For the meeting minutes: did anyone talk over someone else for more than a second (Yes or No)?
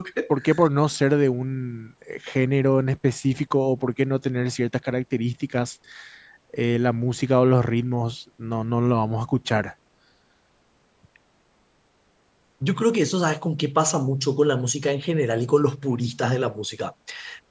No